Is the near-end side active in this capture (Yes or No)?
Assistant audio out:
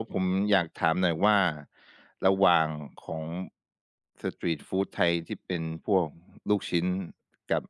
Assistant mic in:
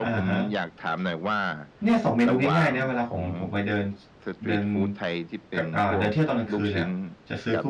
Yes